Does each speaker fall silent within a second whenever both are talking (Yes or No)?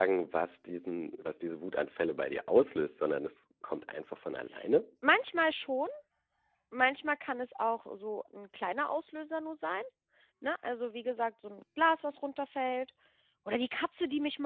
Yes